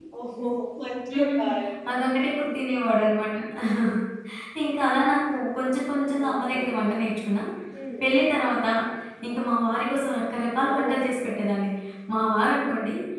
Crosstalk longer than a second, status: none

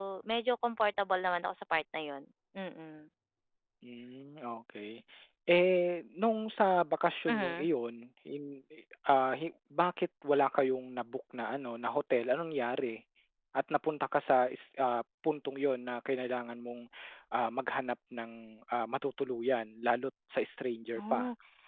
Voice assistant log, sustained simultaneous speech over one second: none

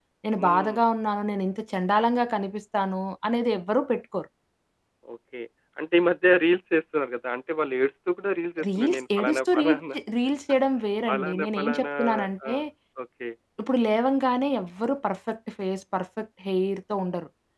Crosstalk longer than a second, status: present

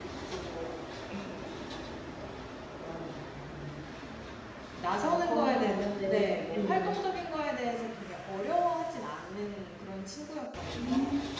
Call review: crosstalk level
present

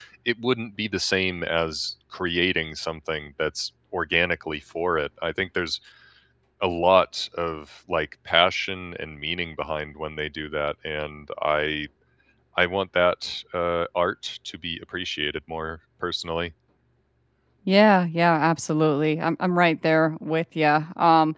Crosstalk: none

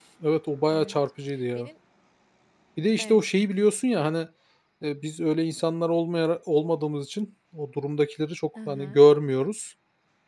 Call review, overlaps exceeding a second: none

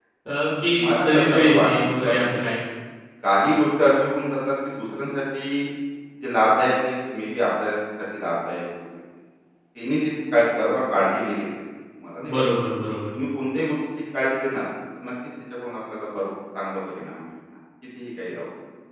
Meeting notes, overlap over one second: present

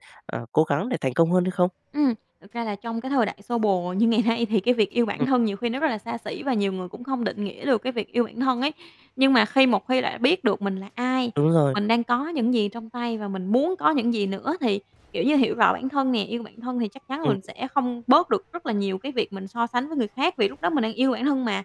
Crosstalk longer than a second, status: none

